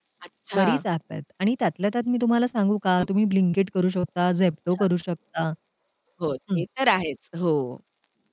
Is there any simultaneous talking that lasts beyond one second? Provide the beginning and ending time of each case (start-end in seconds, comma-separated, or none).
none